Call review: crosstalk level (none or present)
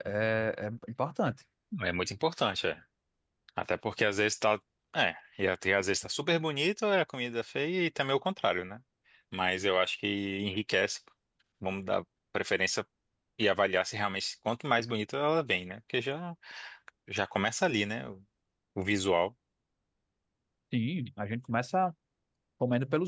none